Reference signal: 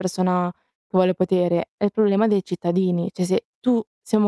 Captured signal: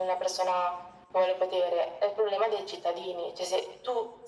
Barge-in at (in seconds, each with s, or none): none